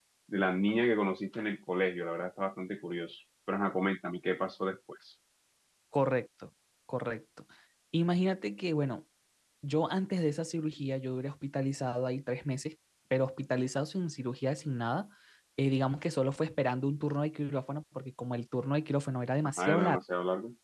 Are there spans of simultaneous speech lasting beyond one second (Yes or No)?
No